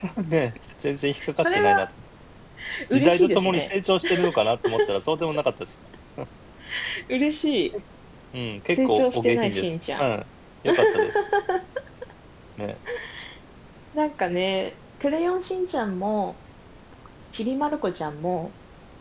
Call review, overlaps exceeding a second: present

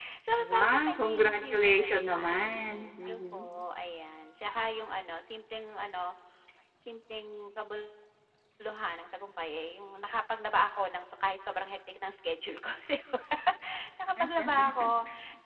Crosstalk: present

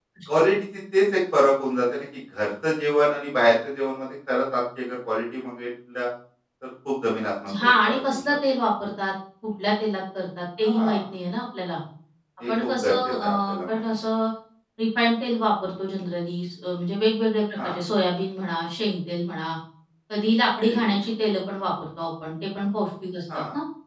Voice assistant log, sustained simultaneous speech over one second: present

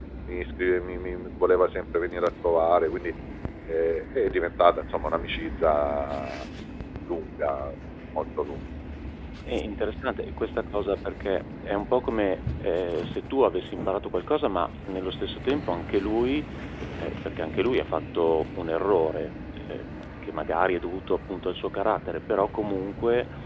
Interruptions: none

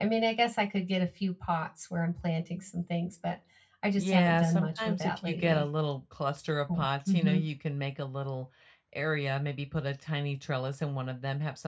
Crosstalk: present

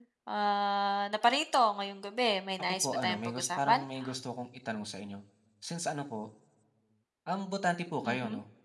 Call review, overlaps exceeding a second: present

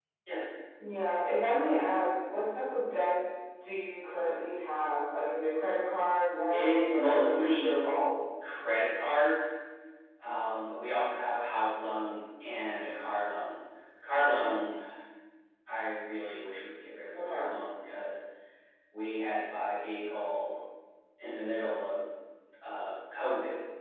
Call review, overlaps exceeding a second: present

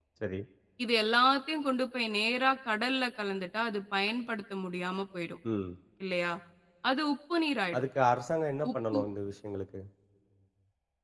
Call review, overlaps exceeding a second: none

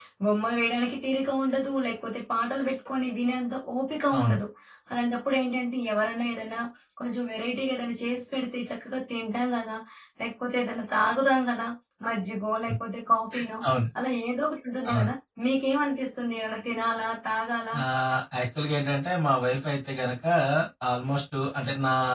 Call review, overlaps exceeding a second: none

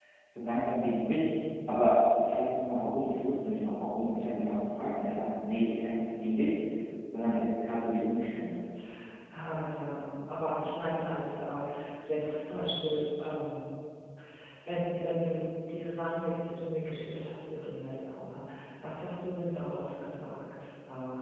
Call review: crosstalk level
none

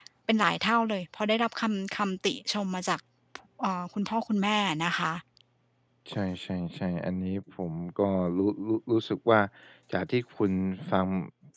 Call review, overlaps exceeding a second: none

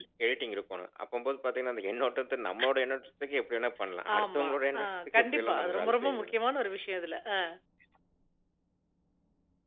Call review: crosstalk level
present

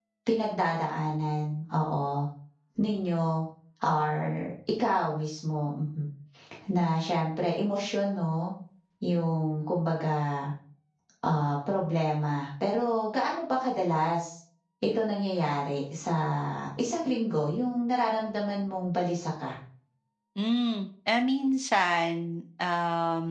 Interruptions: none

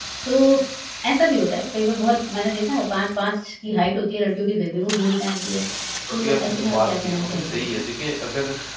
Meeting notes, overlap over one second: present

